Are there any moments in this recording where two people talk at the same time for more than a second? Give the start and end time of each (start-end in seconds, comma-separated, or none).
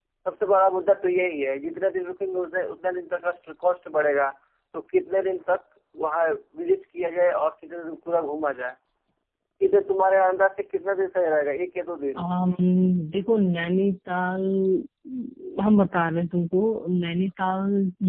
none